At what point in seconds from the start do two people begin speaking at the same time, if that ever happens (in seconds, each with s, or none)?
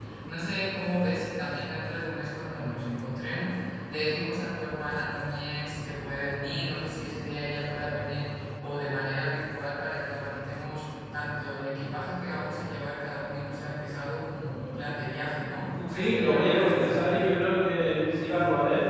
15.9 s